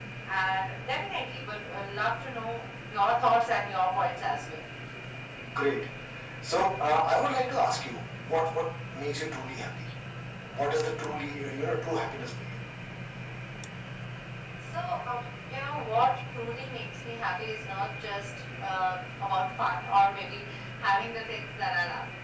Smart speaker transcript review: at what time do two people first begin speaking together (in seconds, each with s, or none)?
none